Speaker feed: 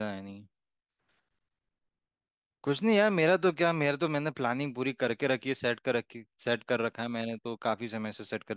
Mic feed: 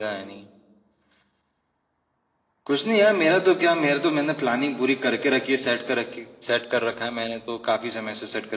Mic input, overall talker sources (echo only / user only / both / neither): echo only